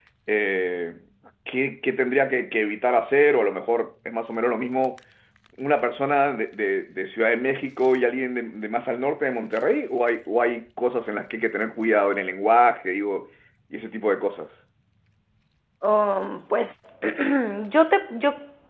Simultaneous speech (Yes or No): No